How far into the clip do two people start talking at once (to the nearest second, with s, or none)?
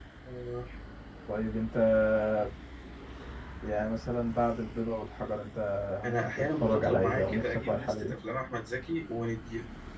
6 s